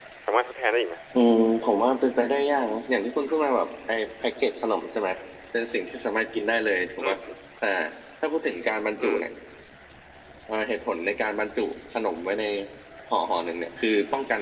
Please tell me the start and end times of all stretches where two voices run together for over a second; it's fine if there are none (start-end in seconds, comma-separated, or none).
none